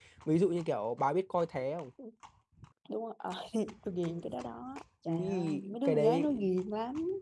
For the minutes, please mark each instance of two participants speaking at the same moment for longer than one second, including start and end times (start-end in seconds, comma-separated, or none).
5.1-6.3